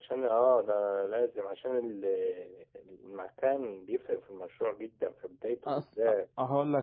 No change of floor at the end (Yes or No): No